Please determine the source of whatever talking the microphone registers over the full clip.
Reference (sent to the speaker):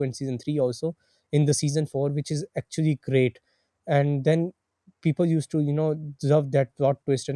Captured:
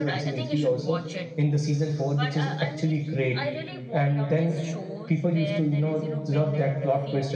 both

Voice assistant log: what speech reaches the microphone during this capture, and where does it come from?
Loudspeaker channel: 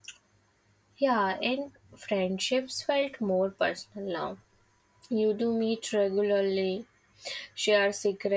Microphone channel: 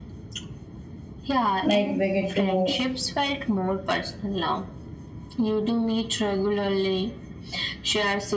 both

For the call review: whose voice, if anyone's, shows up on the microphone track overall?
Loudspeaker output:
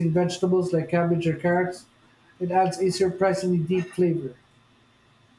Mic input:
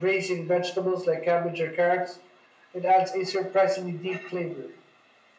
echo only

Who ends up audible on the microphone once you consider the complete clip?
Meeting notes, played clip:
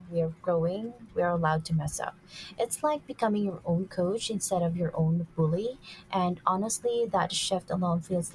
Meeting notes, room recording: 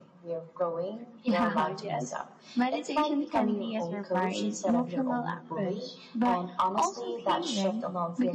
both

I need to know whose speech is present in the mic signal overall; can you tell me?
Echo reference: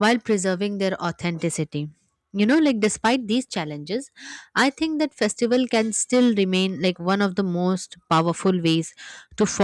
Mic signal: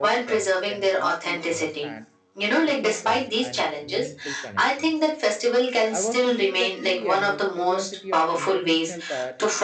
both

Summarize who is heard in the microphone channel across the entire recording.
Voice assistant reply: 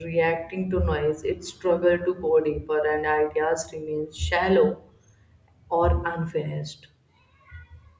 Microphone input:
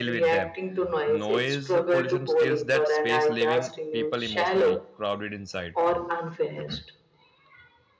both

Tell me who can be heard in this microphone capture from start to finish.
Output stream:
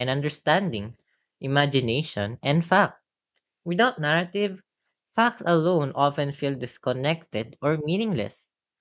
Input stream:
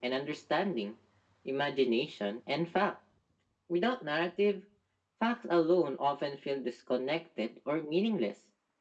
echo only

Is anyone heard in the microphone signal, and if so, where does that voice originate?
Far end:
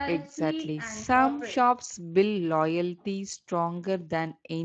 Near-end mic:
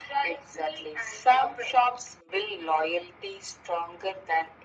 echo only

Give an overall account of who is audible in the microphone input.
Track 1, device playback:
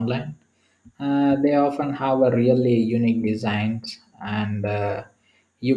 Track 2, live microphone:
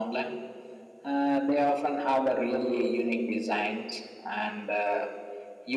echo only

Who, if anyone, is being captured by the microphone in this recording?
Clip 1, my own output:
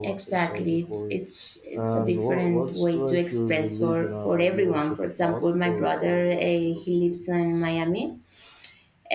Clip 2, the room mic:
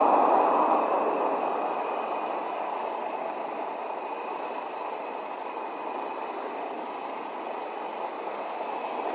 neither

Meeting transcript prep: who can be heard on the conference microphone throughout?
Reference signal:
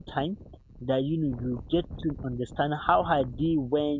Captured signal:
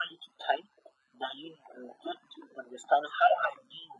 echo only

